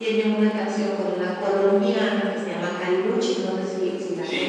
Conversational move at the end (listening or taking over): taking over